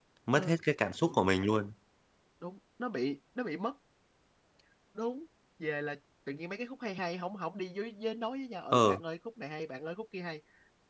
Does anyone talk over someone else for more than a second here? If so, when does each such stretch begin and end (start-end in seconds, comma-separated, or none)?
none